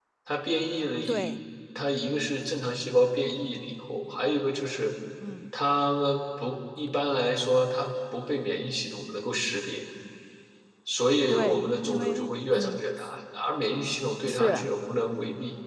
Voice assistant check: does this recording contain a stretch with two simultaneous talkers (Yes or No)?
Yes